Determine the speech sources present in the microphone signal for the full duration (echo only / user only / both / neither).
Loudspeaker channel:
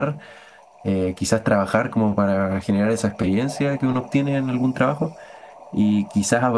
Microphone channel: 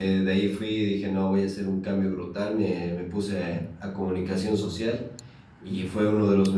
user only